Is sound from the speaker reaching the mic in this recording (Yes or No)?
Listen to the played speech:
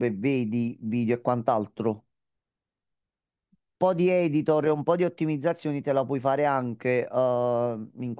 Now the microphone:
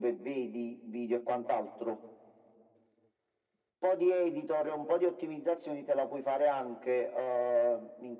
Yes